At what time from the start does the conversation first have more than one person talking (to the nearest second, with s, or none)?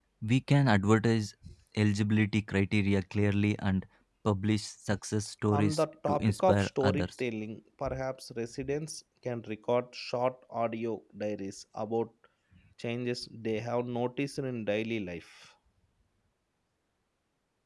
6 s